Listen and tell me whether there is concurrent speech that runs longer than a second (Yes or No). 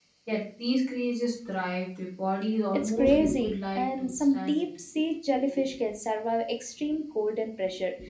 Yes